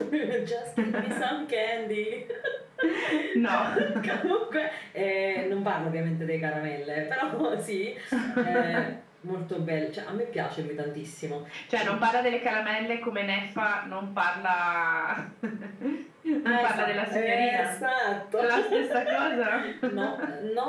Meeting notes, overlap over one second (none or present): present